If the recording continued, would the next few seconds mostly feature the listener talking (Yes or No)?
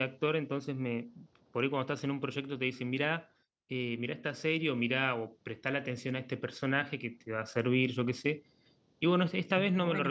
No